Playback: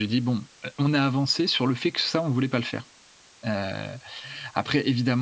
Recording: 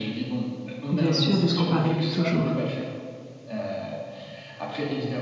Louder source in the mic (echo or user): user